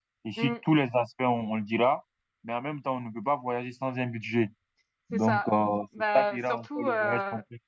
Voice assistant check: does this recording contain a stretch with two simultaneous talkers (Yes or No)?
Yes